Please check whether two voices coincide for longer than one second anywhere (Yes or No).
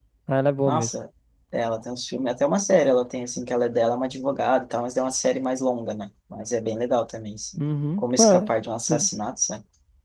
No